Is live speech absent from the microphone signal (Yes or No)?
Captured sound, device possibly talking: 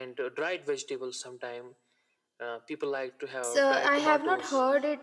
No